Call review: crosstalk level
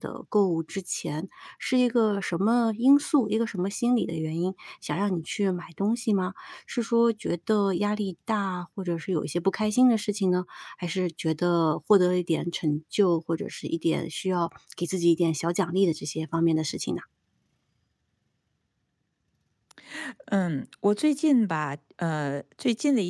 none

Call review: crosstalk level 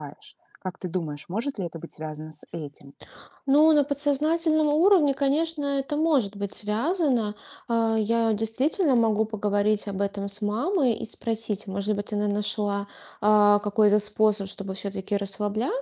none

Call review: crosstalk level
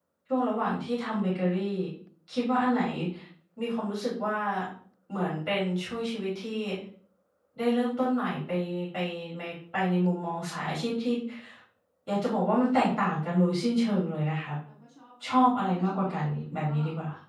present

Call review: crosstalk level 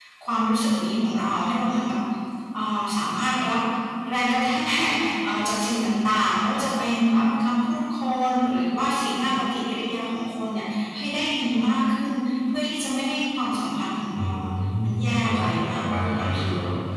present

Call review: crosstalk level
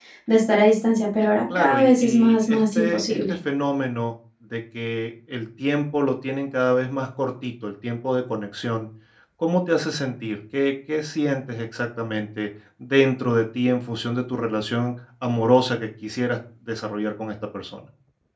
present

